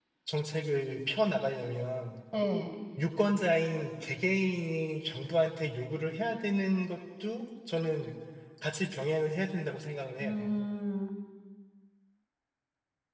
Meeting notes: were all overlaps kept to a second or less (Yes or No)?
Yes